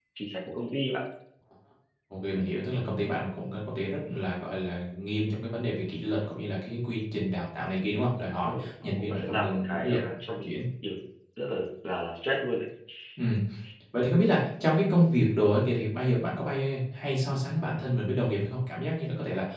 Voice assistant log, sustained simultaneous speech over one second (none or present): present